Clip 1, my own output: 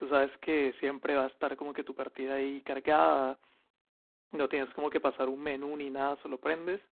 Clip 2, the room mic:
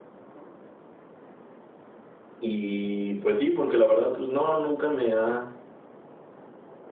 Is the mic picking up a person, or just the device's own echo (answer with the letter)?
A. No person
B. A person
B